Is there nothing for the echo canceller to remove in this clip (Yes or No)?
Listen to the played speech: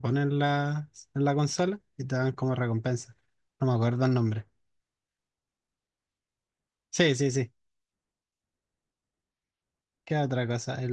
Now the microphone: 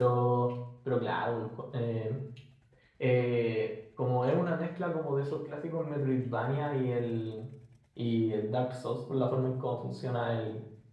Yes